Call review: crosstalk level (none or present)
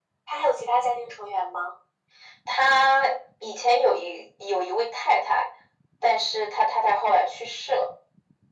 none